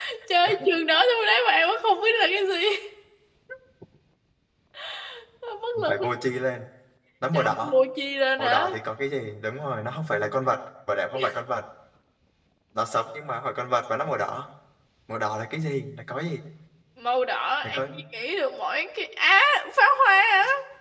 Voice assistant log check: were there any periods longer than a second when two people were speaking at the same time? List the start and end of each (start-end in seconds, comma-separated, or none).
none